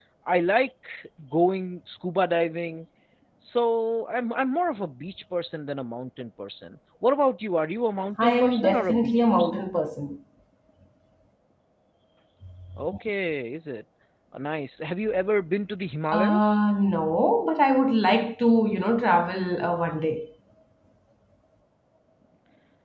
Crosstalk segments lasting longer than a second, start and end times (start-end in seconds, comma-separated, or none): 8.2-9.6